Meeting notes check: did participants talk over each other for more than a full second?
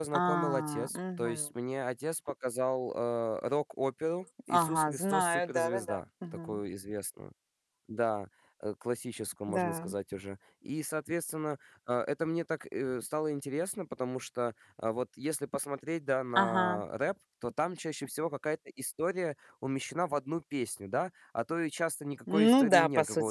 Yes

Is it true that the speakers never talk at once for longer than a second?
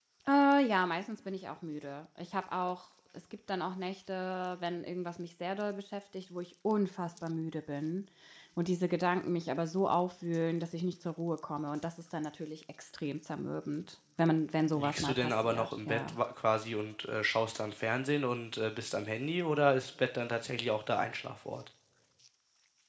No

